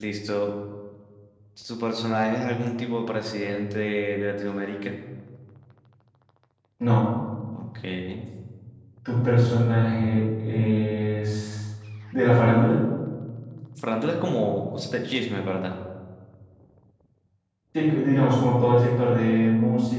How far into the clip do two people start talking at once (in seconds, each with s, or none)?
none